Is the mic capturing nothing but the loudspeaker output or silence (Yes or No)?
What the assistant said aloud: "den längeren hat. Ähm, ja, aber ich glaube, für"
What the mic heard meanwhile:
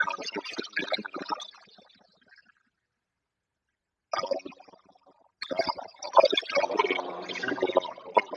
No